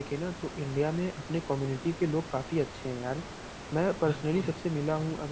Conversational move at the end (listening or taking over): listening